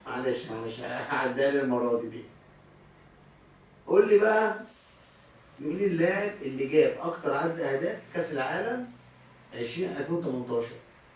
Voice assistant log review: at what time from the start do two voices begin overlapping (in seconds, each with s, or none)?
none